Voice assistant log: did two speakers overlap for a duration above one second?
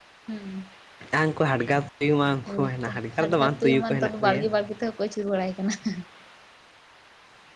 Yes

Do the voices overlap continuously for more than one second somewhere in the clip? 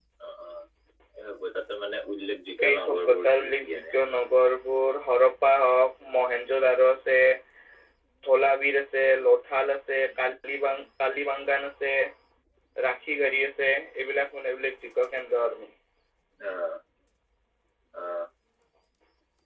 Yes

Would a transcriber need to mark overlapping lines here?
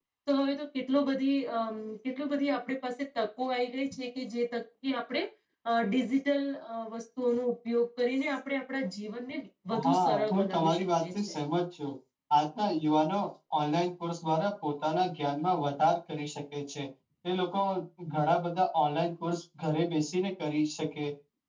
Yes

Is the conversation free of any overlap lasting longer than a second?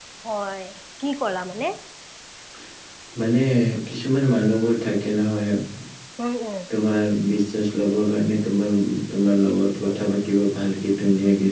Yes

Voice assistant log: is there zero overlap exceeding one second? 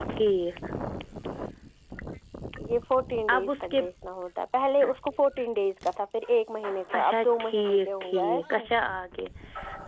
No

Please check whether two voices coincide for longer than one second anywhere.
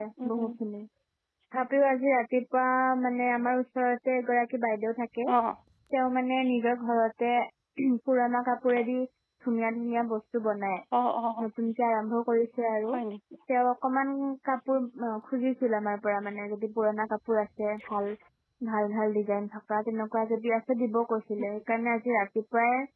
No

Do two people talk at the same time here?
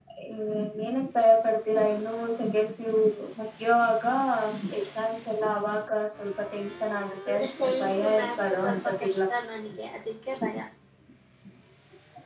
Yes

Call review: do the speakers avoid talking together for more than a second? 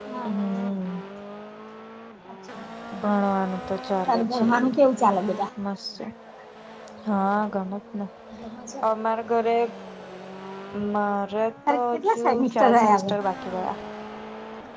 No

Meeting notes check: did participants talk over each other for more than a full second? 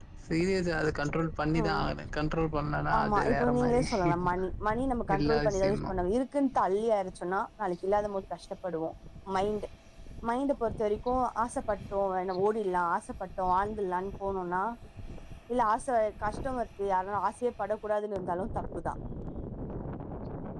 Yes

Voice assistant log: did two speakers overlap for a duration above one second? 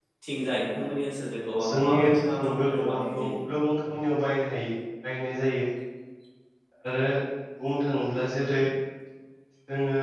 Yes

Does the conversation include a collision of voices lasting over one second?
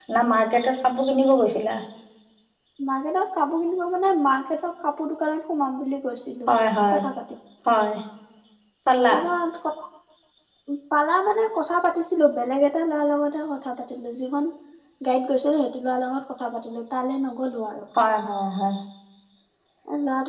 No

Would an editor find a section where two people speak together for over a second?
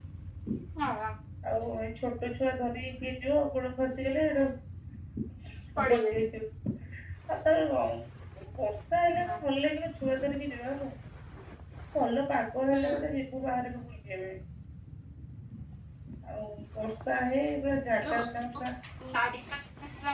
No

